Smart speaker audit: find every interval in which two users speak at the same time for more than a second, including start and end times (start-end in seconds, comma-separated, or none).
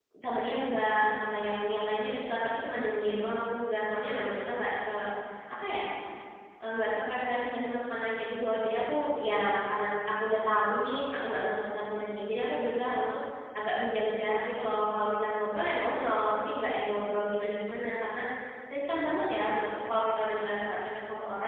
none